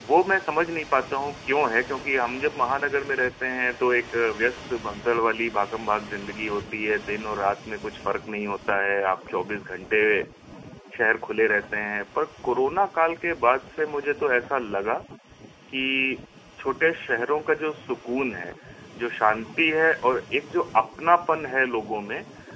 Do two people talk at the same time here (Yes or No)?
No